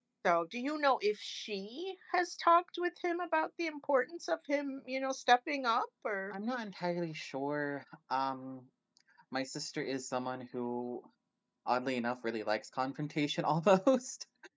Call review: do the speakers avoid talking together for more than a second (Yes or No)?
Yes